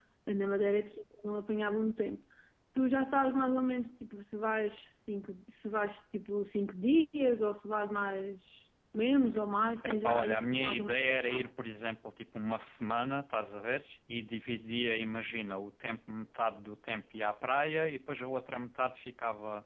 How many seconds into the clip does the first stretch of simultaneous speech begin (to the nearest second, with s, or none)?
10 s